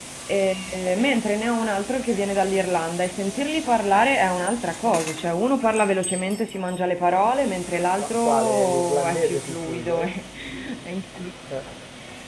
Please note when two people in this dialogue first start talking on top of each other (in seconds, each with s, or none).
7.9 s